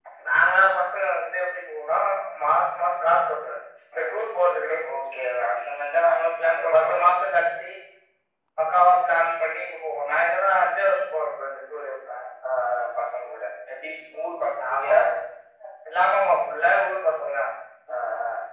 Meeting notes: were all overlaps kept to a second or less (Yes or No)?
Yes